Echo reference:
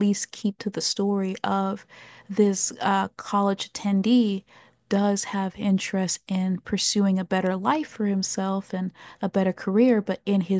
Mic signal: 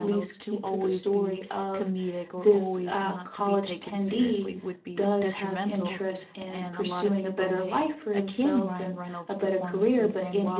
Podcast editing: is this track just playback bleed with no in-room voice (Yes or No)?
No